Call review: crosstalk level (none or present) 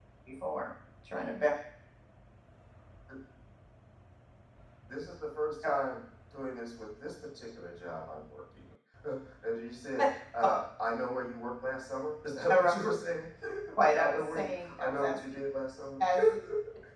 present